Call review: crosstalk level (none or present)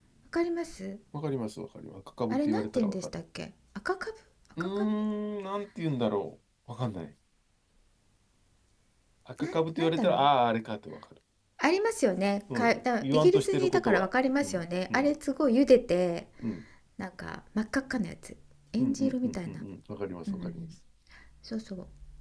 present